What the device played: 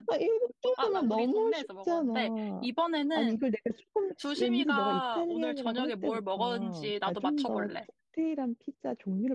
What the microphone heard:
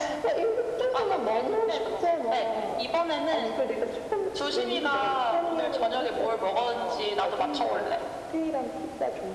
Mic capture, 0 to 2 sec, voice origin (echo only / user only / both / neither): echo only